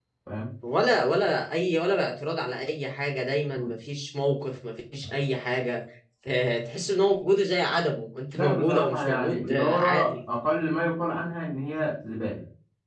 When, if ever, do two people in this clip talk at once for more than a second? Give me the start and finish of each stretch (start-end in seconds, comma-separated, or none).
8.3-10.2